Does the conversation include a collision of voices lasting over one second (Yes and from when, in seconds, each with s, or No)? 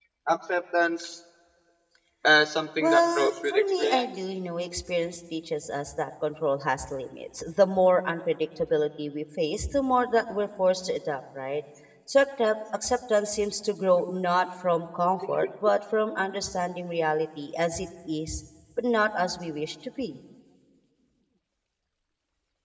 Yes, from 2.8 s